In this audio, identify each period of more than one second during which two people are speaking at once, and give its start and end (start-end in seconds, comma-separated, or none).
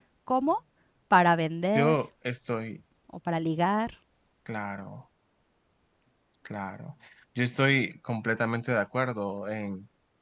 none